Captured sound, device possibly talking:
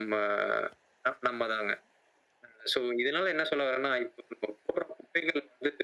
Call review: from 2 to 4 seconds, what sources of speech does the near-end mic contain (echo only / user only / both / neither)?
echo only